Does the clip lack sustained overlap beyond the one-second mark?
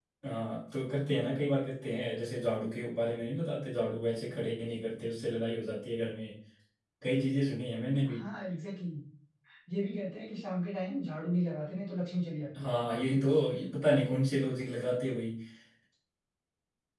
Yes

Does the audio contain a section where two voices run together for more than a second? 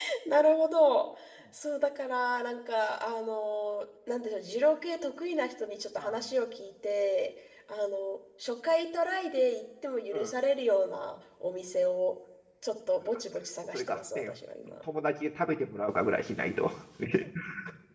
No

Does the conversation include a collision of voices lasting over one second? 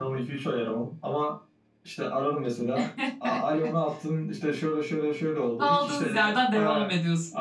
Yes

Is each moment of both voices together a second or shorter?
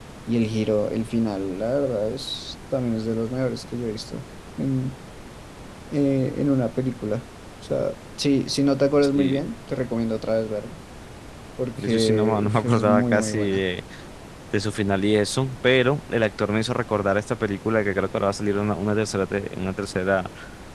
No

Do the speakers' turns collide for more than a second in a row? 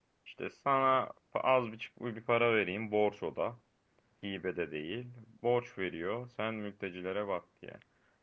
No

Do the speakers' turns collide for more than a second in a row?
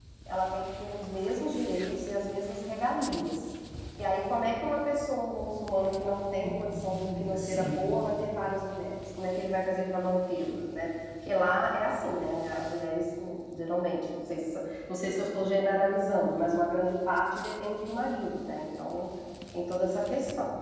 Yes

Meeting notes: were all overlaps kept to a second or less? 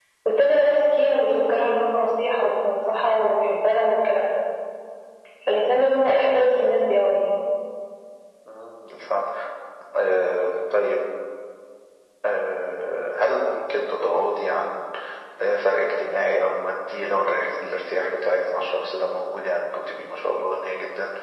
Yes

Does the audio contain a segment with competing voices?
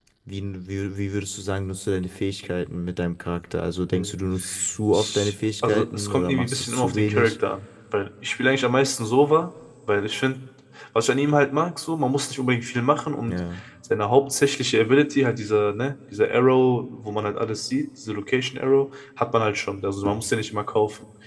Yes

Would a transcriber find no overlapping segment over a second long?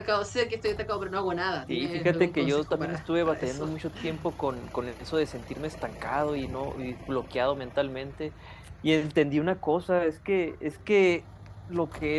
No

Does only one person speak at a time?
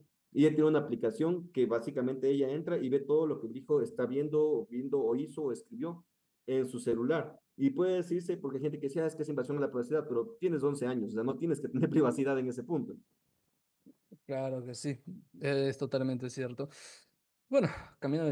Yes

